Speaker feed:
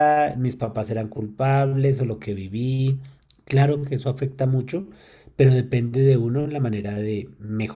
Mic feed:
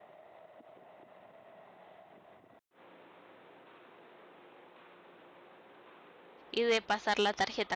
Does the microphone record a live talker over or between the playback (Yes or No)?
Yes